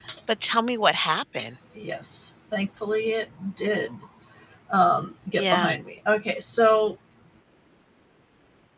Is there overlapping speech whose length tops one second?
No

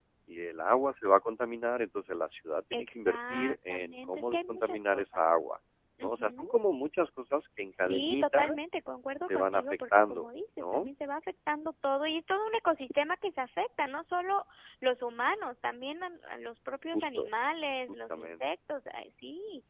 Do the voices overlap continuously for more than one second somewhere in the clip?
Yes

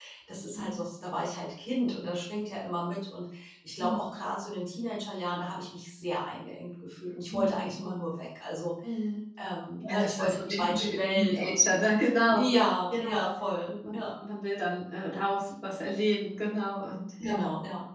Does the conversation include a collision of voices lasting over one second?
Yes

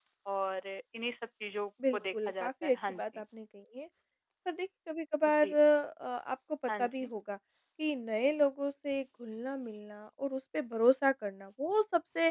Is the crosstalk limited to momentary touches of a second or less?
No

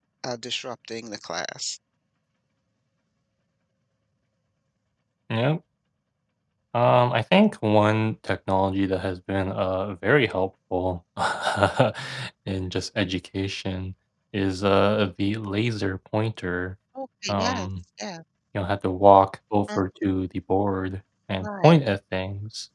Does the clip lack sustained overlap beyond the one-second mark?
Yes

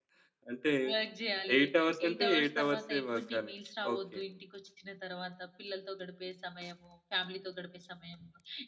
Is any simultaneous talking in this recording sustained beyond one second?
Yes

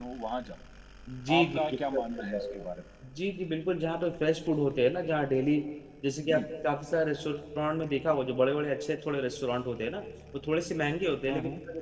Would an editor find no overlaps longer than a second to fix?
No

